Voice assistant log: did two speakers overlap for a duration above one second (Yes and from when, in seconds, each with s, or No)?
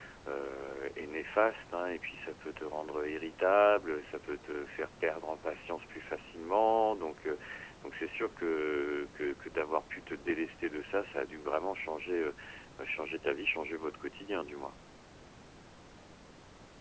No